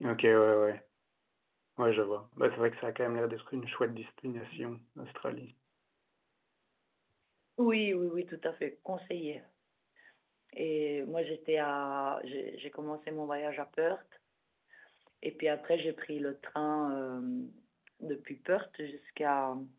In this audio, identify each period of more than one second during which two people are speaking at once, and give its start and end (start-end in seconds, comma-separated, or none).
none